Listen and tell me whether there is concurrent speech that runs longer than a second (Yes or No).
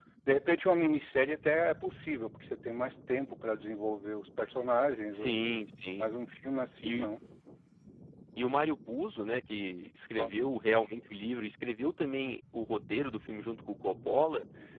No